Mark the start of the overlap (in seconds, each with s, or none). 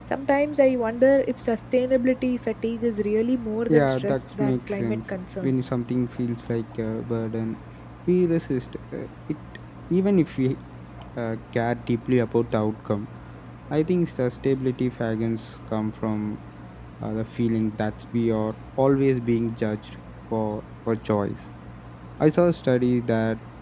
3.7 s